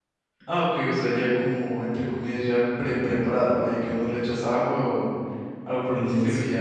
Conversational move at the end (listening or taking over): listening